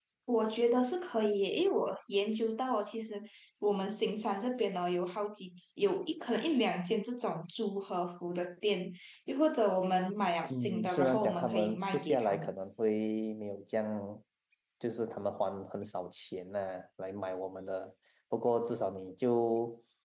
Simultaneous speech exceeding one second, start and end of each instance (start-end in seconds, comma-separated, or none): 10.5-12.5